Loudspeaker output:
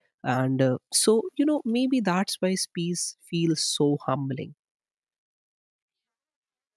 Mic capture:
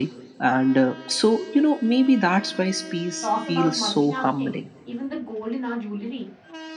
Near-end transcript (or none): Talk about multitasking. Even the gold in our jewelry,